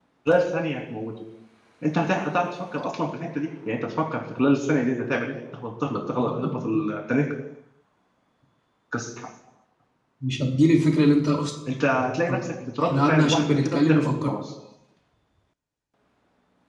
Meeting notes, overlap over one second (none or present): present